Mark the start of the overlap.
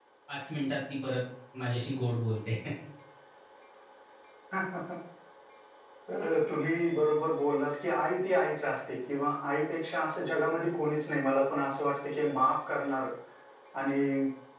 none

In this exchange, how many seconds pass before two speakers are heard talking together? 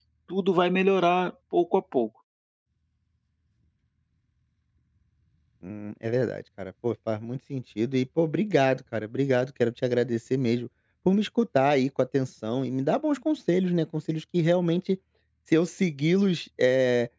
none

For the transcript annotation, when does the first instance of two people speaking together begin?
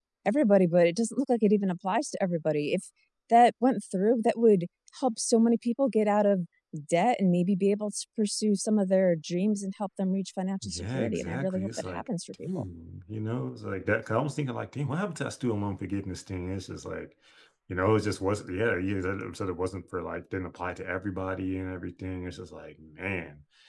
10.6 s

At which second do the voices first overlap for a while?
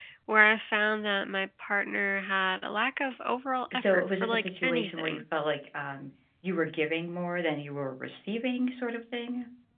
3.7 s

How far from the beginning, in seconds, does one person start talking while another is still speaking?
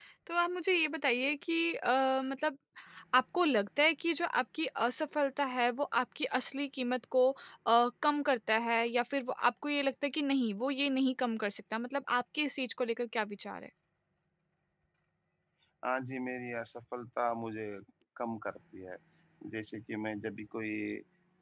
none

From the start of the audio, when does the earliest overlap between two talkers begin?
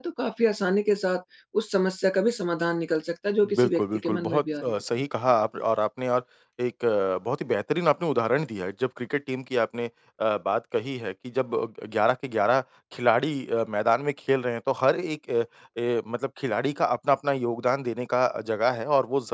3.4 s

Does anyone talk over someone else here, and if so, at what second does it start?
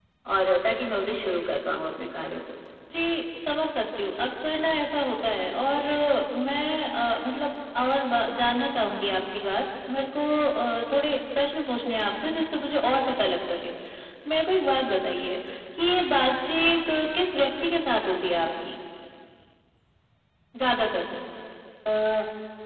none

